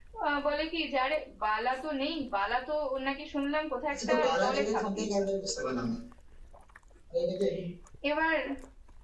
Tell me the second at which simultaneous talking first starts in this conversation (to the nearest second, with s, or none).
4 s